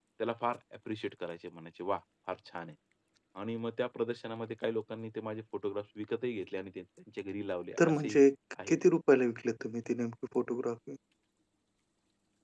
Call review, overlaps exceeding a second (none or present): none